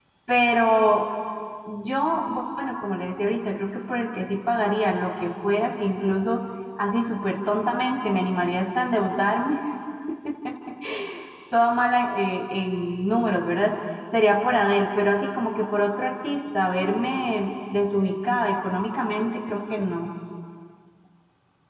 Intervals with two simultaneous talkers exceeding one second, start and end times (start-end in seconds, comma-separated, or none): none